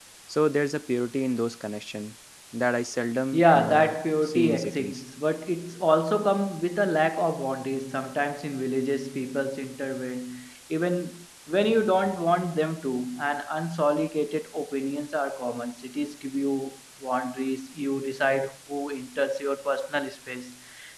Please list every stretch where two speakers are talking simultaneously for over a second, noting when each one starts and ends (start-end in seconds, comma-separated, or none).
3.3-5.0